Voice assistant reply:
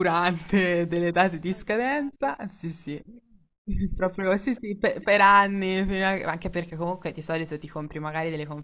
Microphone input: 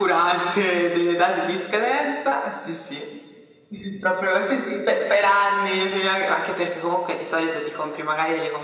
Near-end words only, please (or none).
none